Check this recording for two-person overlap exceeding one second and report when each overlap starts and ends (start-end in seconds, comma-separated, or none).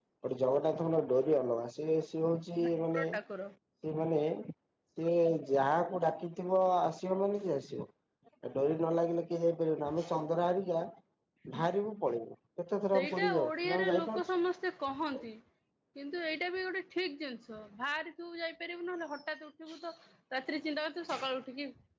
12.9-14.2